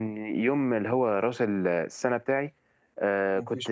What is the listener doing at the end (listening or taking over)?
listening